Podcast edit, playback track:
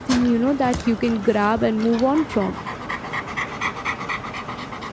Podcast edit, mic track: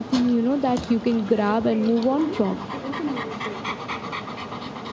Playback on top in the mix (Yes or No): Yes